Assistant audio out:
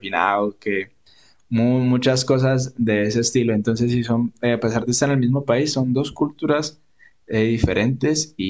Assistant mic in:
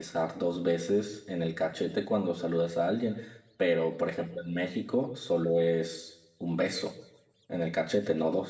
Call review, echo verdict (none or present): none